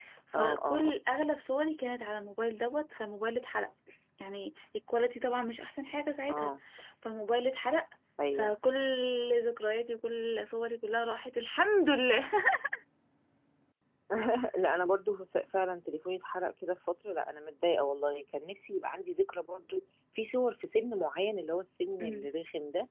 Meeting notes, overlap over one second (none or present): none